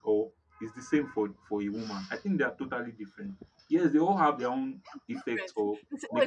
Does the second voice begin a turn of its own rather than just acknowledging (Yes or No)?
Yes